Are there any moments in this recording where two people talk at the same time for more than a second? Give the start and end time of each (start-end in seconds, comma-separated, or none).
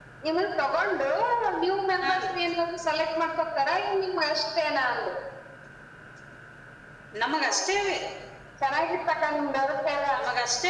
none